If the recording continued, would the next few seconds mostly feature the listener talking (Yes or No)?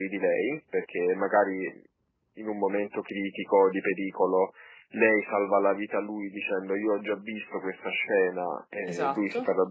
No